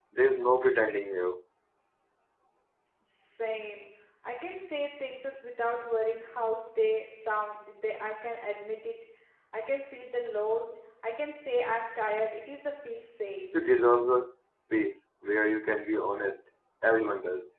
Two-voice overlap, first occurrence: none

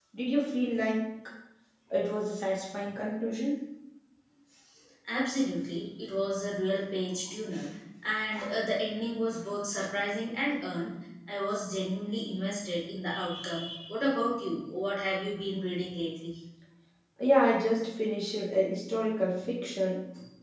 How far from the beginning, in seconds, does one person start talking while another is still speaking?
none

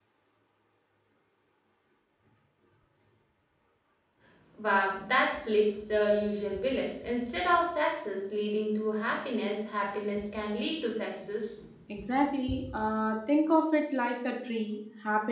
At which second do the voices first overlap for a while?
none

